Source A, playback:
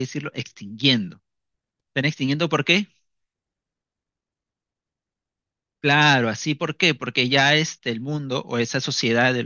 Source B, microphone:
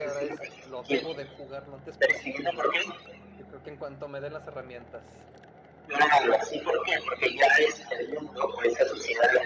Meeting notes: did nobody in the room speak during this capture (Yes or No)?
No